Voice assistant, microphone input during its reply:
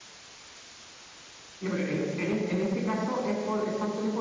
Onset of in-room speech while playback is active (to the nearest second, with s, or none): 2 s